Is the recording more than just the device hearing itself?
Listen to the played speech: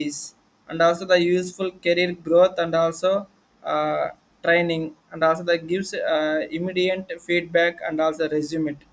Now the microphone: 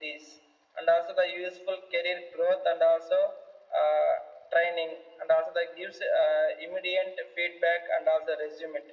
No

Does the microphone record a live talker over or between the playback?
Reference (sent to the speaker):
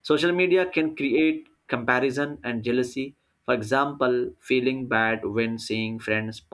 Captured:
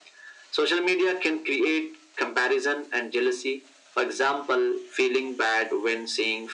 No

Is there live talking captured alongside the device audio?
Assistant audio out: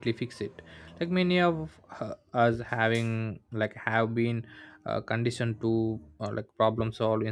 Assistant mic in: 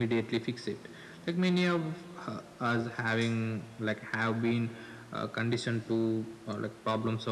No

